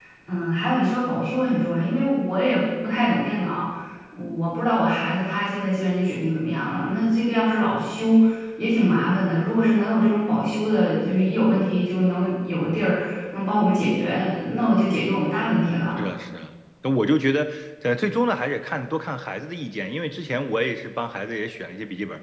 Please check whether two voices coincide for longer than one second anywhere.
No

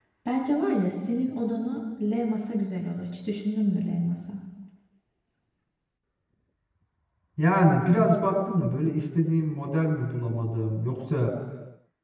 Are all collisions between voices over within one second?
Yes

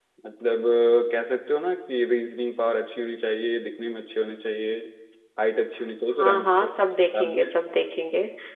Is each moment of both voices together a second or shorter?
No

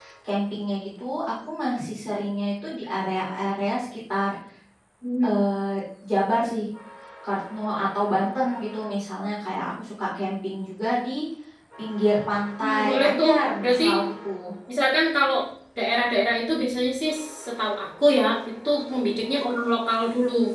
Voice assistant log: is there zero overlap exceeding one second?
No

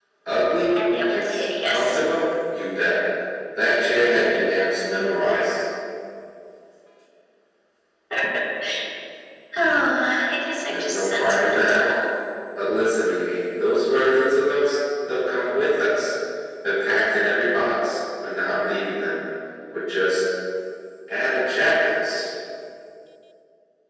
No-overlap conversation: No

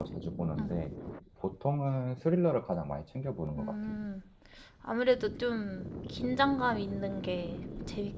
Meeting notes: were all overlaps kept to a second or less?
Yes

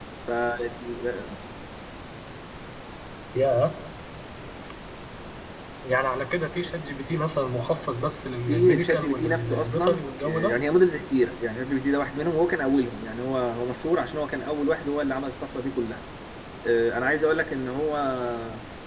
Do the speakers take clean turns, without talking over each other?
No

